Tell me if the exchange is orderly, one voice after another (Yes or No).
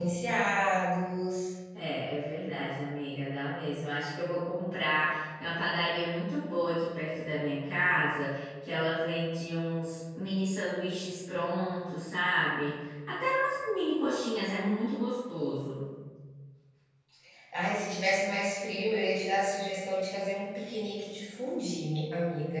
Yes